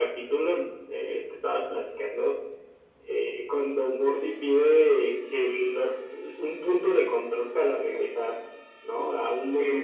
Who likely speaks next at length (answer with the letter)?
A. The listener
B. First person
B